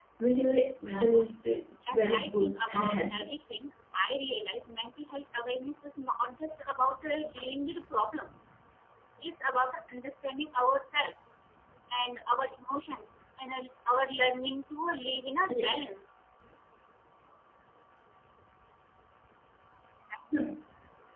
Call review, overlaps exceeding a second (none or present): present